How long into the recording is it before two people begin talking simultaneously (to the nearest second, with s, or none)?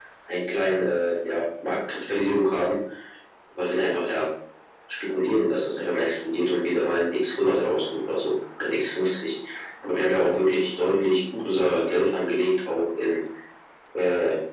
none